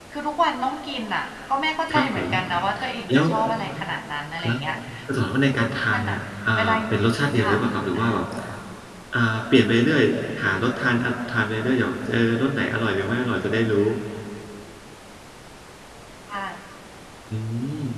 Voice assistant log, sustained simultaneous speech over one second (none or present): none